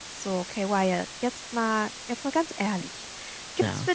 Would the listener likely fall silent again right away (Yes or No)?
Yes